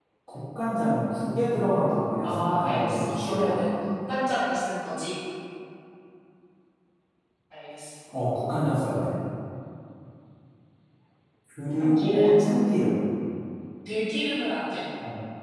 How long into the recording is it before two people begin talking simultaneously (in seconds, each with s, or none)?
2.2 s